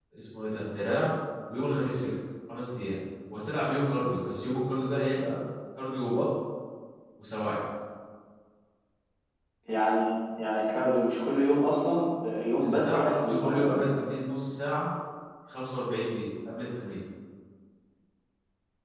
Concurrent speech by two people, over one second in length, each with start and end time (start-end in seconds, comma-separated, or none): 12.6-13.8